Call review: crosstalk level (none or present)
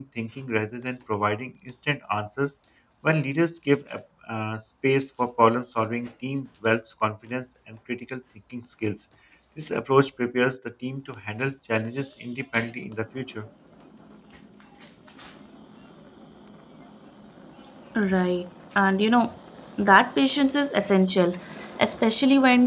none